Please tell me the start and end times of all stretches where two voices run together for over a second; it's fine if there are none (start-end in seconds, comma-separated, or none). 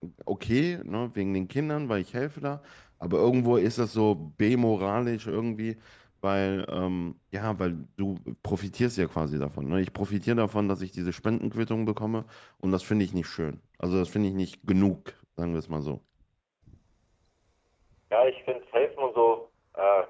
none